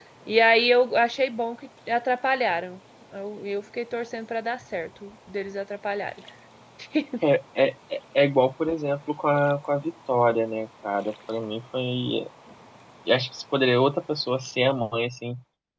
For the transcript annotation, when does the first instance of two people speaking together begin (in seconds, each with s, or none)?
none